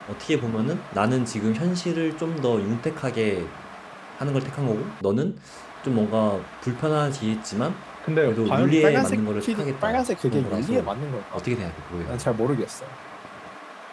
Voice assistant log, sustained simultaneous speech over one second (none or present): present